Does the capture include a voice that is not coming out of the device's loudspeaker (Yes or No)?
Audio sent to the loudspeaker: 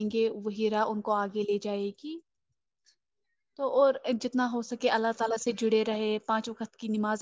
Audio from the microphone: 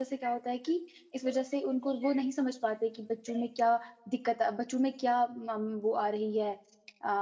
Yes